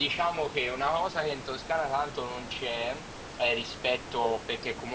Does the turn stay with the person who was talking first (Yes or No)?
Yes